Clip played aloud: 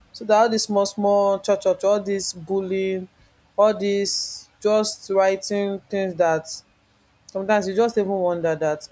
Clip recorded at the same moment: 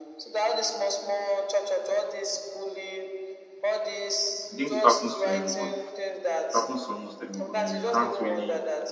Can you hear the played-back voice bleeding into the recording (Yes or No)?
Yes